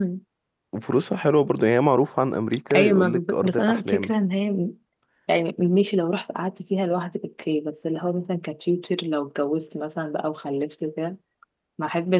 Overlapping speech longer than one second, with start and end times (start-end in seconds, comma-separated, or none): 2.7-4.1